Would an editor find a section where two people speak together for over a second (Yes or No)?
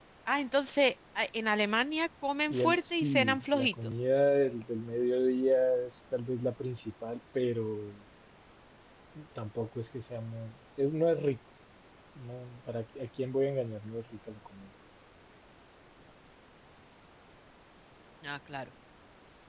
Yes